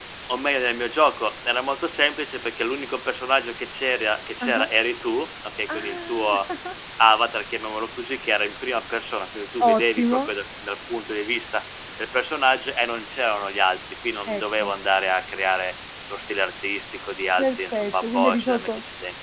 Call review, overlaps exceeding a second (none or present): present